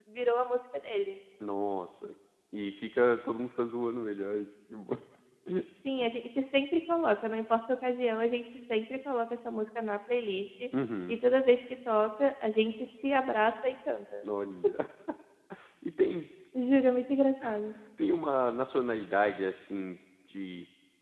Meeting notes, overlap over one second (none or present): none